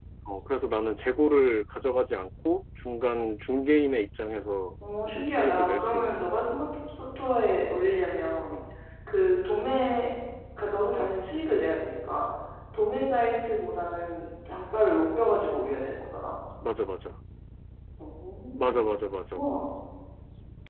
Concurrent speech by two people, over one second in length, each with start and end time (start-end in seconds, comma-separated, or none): 5.0-6.3